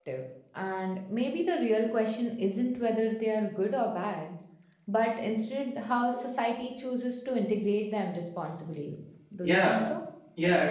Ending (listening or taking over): taking over